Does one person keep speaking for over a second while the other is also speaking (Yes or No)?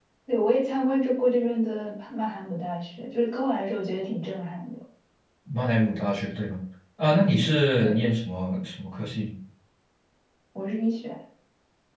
No